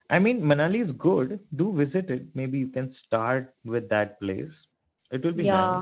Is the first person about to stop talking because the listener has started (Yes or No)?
Yes